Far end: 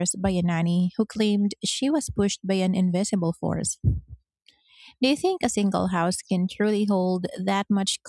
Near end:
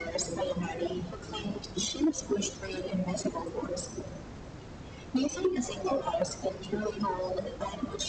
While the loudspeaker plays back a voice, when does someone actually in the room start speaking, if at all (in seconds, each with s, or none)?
none